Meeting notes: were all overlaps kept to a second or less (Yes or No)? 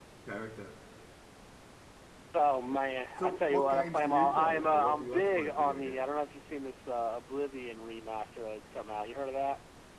No